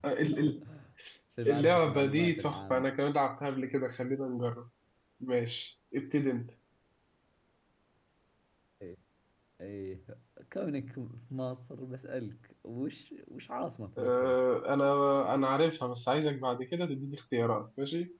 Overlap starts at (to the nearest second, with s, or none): 1 s